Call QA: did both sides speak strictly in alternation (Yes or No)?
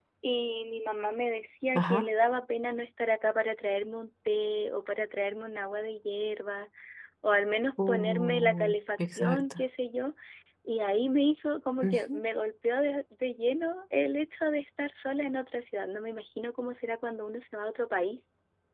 No